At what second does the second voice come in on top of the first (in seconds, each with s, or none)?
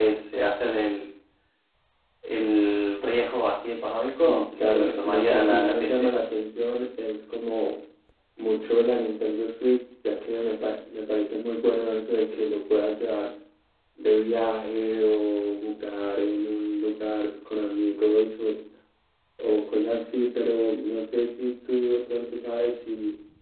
4.2 s